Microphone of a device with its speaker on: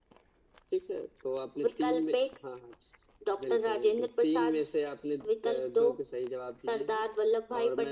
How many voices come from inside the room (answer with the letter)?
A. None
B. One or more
A